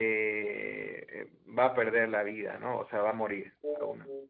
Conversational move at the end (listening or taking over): listening